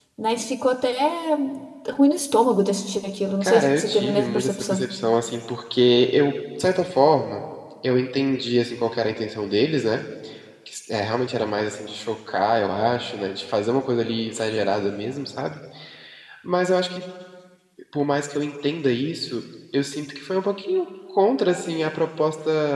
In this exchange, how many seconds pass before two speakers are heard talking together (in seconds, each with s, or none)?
3.4 s